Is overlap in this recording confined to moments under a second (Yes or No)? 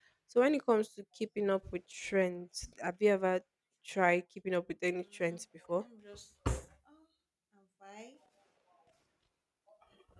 Yes